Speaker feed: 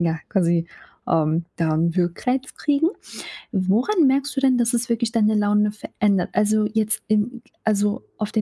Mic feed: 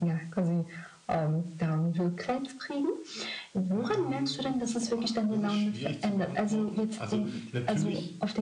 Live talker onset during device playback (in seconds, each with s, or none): 3.7 s